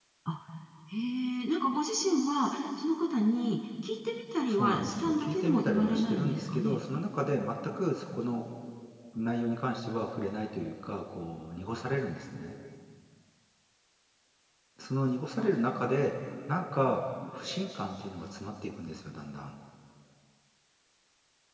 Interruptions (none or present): present